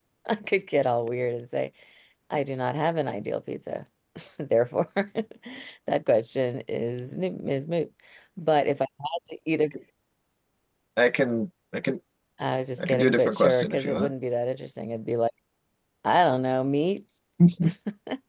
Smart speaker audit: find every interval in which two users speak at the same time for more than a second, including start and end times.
12.8-14.1

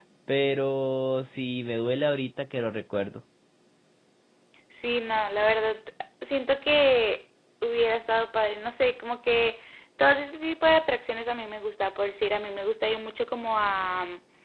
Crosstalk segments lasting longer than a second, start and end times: none

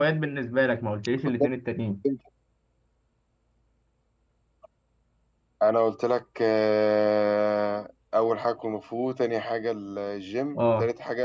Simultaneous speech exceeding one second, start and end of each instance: none

